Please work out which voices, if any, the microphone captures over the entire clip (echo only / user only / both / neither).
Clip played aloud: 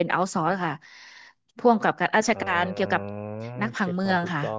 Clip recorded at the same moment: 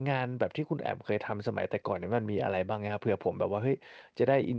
user only